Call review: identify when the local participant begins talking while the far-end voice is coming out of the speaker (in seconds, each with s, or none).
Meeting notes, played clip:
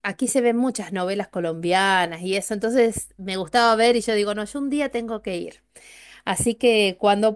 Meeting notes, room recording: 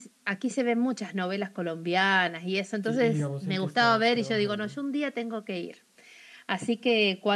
2.8 s